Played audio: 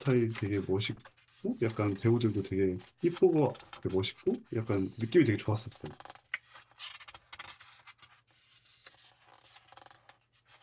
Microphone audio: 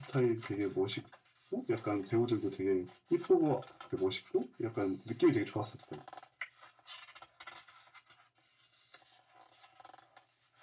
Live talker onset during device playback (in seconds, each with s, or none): none